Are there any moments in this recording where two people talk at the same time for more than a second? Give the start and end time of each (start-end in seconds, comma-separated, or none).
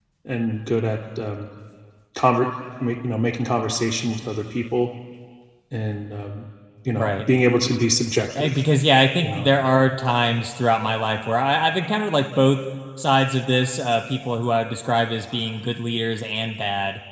none